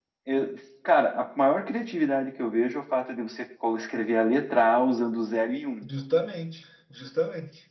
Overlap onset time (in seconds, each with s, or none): none